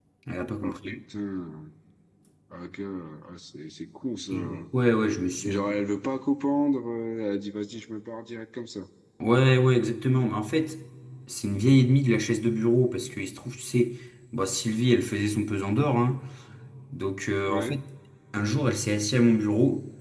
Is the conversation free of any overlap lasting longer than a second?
Yes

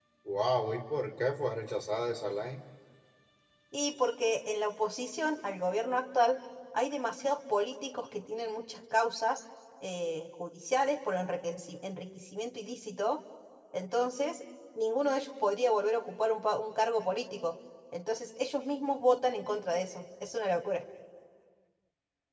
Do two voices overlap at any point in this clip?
No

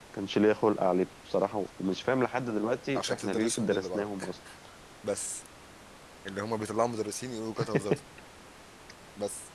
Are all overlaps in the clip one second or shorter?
No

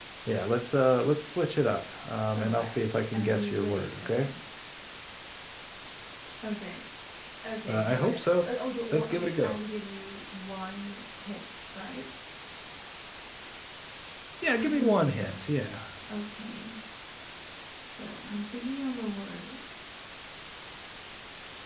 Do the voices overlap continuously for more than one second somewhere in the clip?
Yes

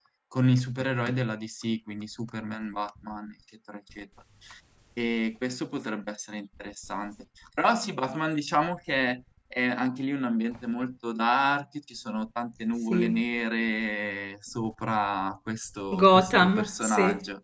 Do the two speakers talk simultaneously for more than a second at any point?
Yes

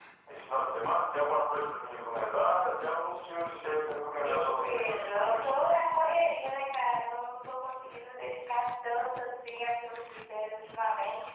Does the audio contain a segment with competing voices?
Yes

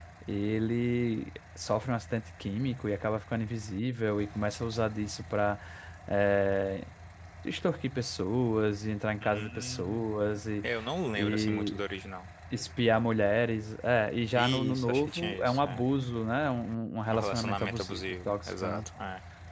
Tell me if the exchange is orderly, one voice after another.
No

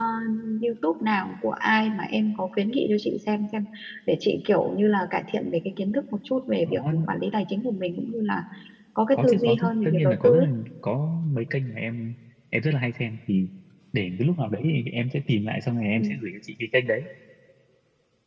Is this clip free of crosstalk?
No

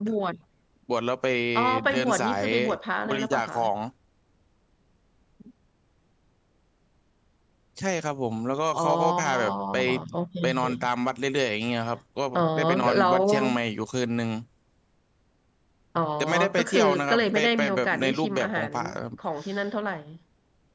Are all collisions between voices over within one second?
No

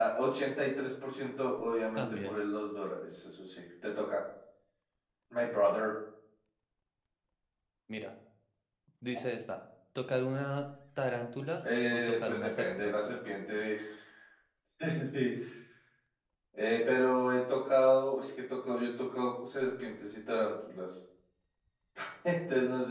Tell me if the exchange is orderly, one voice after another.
No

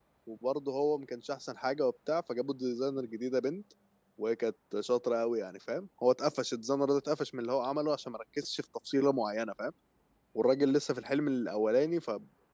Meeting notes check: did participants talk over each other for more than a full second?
No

